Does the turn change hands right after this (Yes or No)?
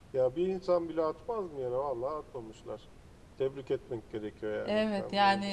Yes